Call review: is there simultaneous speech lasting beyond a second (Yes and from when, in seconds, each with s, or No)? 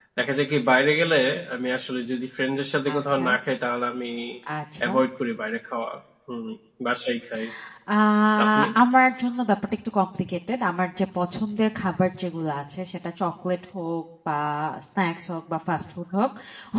No